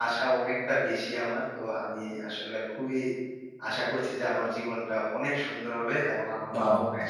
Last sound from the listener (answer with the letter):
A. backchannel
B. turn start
A